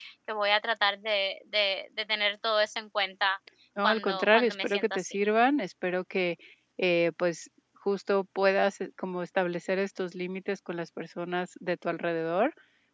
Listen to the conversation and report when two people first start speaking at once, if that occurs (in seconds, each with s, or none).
3.8 s